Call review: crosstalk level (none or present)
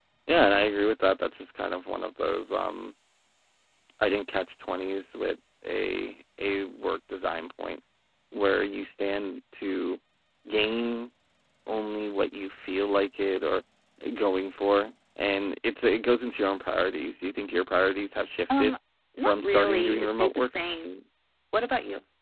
present